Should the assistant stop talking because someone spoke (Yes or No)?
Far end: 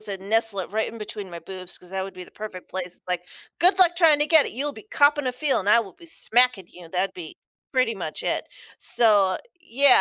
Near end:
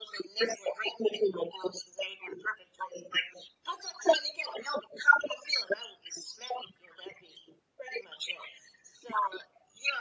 No